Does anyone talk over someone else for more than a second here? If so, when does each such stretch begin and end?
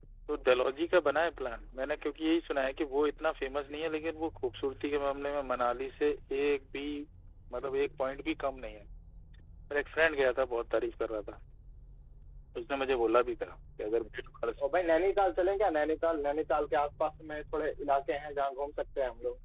none

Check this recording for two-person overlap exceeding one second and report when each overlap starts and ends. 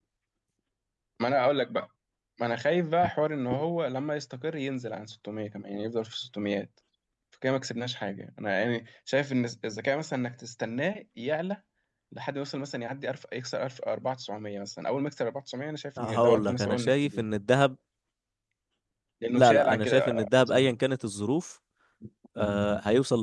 16.0-17.2, 19.3-20.8

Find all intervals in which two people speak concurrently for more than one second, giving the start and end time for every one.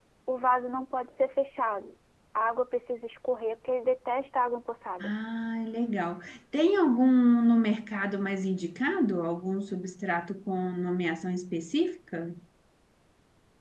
none

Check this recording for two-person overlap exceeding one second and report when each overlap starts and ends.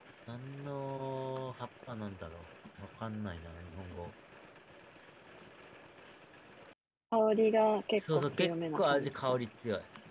8.0-9.3

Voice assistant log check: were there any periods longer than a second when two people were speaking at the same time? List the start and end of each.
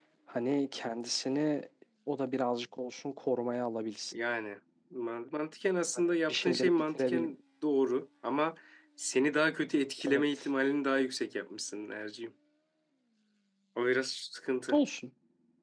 6.0-7.3

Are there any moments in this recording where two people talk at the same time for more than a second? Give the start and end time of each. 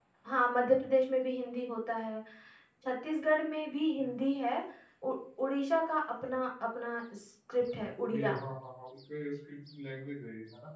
none

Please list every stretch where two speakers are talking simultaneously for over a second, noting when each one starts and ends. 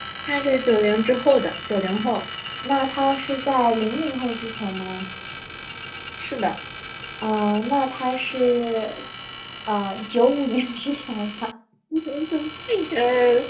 none

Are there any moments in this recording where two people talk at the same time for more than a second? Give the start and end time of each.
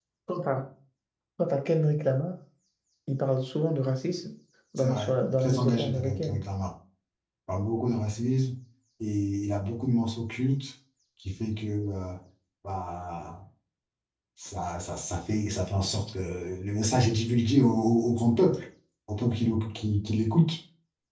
4.8-6.4

